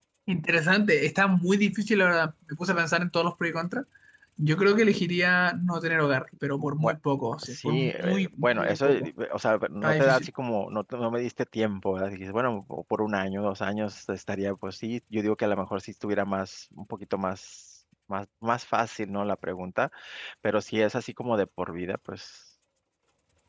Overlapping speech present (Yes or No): Yes